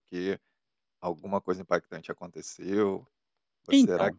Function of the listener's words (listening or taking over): listening